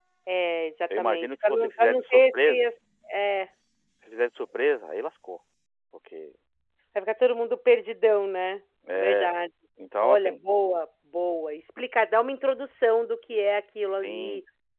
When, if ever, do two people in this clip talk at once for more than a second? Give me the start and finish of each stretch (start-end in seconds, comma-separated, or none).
1.0-2.7